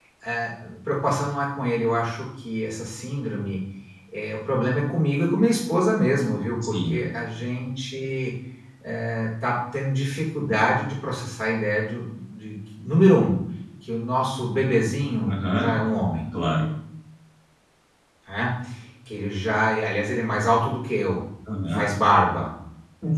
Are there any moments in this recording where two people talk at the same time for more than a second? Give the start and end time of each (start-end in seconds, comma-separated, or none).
none